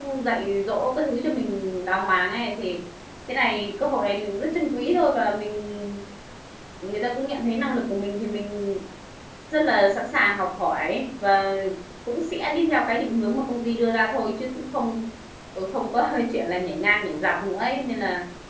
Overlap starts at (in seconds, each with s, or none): none